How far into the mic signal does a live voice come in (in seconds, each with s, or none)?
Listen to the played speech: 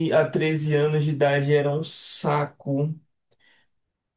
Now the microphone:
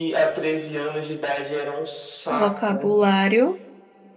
2.4 s